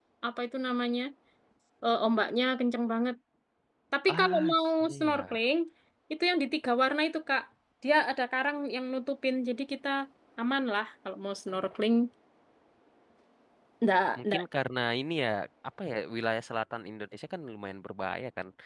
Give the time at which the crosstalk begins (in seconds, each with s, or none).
4.1 s